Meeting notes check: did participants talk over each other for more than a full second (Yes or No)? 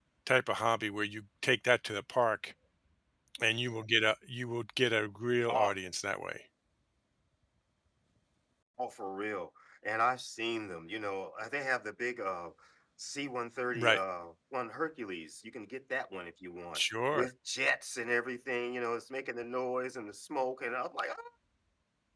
No